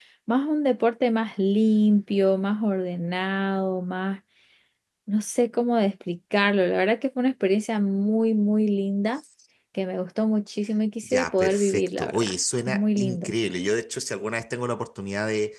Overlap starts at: 11.0 s

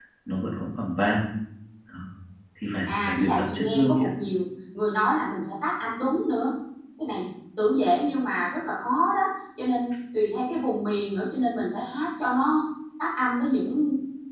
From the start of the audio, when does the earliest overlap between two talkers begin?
2.9 s

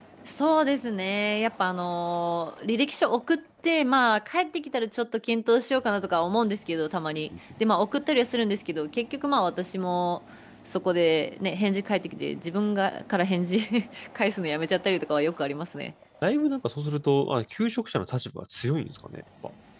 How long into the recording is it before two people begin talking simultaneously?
none

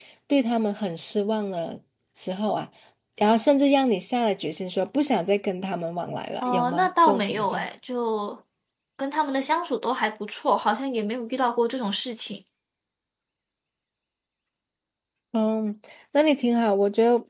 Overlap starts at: 6.4 s

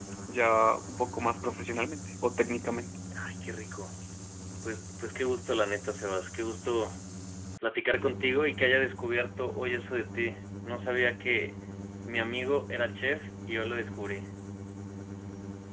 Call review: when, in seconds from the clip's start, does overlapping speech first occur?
none

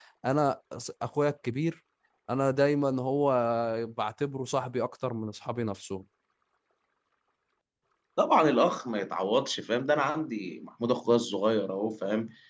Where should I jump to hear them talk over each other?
none

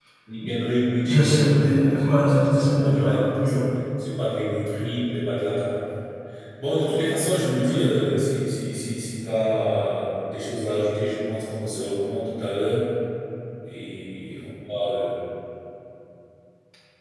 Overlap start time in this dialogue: 1.1 s

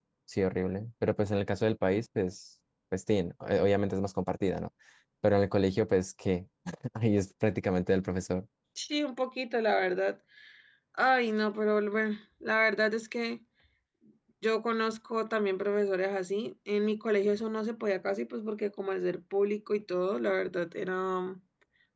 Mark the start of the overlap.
none

